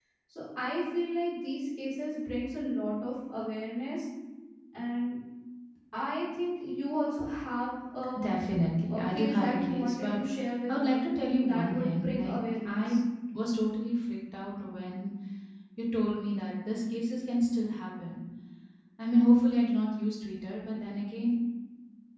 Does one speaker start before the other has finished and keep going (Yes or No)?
Yes